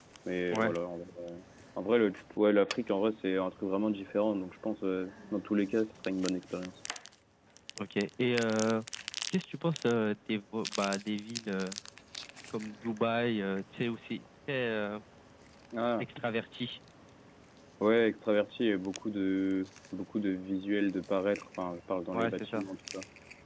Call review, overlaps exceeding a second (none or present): none